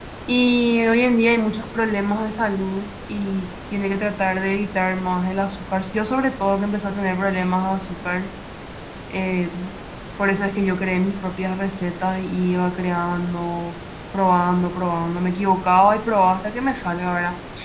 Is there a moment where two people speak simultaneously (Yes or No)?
No